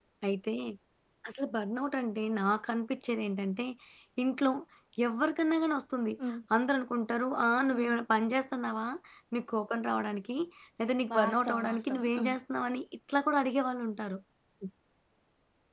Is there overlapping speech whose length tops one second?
Yes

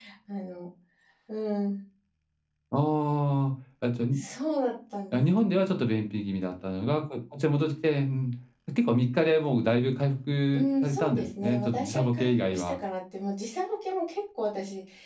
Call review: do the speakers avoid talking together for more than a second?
No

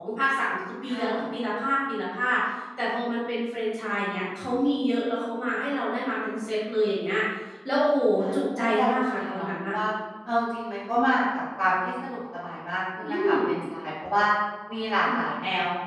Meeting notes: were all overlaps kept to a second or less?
No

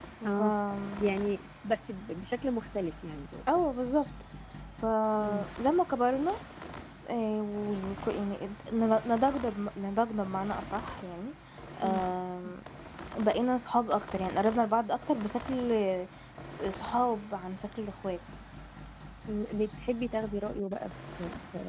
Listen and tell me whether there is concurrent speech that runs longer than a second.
No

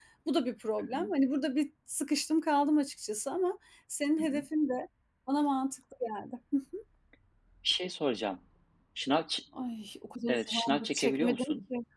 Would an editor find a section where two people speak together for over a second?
Yes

